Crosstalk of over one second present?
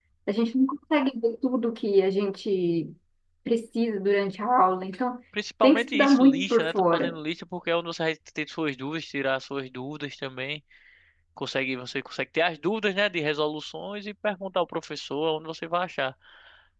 Yes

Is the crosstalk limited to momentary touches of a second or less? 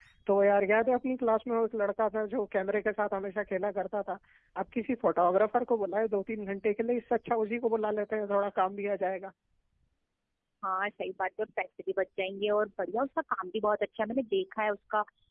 Yes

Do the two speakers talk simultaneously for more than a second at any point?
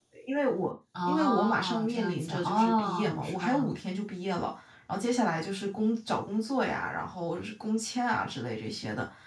Yes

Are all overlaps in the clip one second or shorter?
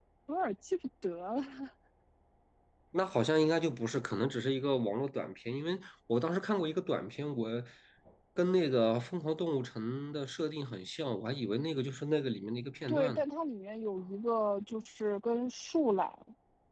Yes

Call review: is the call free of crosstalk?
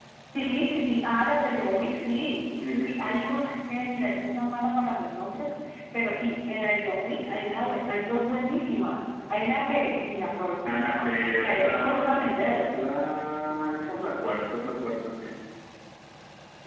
No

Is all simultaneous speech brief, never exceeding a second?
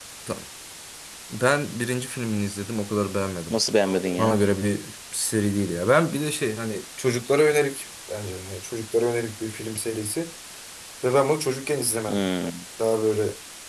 Yes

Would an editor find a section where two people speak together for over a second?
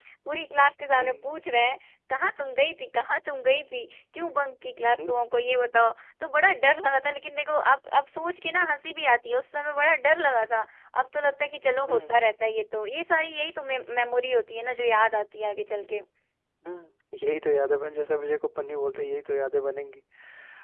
No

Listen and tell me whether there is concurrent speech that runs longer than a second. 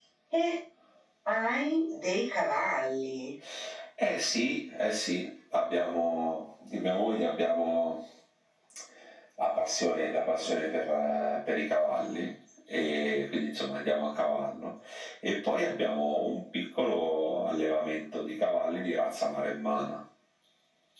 No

